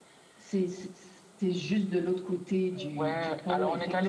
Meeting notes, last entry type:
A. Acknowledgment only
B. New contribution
B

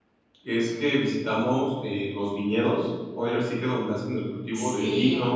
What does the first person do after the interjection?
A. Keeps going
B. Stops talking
A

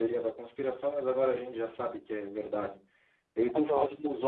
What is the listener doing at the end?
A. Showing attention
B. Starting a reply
A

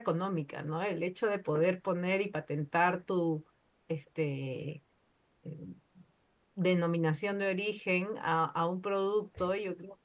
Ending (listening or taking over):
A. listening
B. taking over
A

